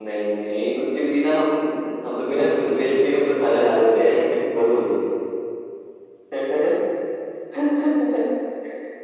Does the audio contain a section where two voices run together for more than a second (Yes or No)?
Yes